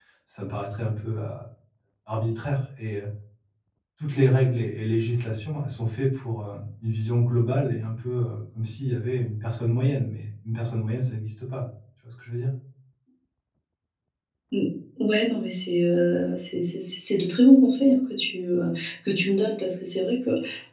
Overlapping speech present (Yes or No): No